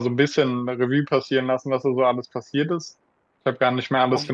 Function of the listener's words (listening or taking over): listening